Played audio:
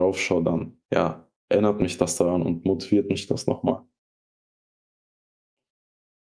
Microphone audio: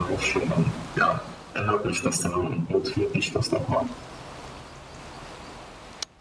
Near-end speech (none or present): none